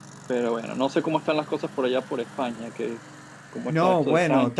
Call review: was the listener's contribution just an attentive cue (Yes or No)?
No